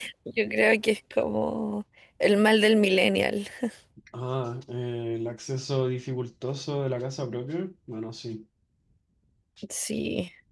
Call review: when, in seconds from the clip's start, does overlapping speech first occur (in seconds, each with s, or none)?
none